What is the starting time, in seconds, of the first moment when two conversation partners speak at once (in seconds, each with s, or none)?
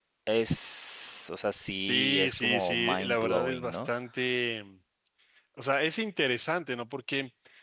1.8 s